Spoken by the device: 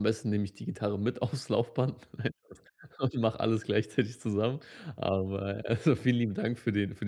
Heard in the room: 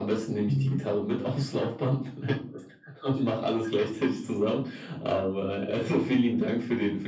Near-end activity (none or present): present